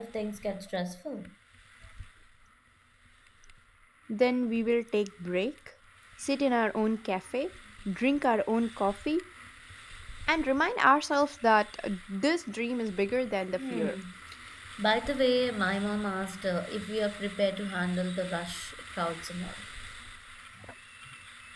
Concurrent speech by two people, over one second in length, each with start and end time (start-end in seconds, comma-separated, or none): none